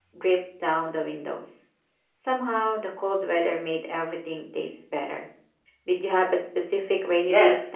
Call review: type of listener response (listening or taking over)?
taking over